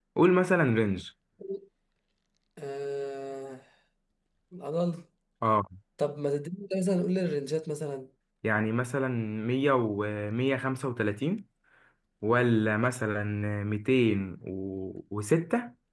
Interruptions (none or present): none